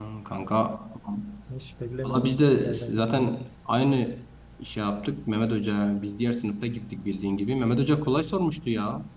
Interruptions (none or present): present